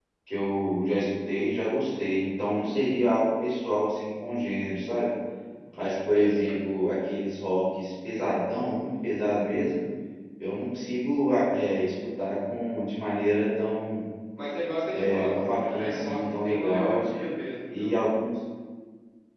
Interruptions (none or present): present